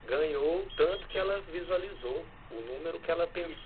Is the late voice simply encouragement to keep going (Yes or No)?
Yes